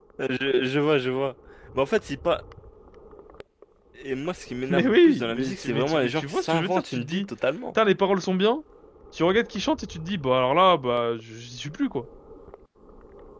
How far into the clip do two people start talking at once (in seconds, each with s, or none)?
4.7 s